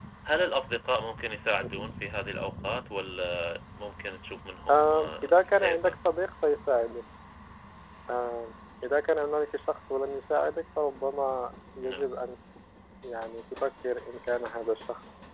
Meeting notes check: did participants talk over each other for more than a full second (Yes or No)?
Yes